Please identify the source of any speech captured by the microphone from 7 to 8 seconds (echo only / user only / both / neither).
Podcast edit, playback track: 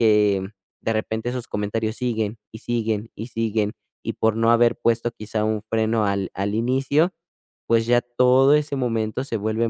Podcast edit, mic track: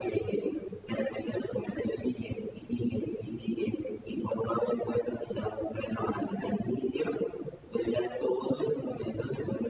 echo only